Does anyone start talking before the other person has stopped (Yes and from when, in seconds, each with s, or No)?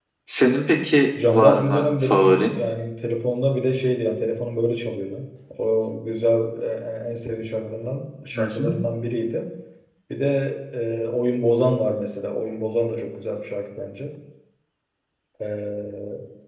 Yes, from 1.2 s